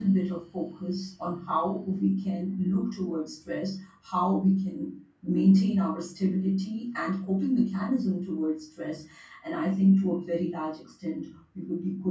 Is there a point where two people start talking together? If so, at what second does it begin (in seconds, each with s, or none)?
none